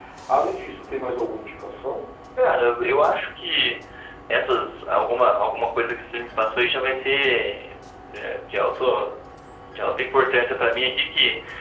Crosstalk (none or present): none